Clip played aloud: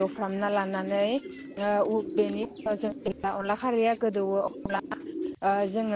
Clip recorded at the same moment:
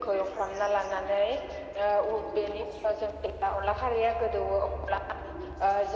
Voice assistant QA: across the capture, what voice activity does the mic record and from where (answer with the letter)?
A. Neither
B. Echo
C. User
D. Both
B